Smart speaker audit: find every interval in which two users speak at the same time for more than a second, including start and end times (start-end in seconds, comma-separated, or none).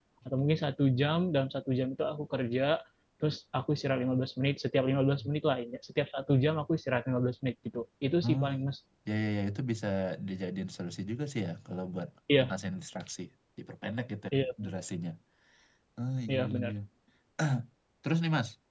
none